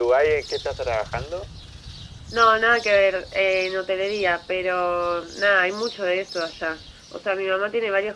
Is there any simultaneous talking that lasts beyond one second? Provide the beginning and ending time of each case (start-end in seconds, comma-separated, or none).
none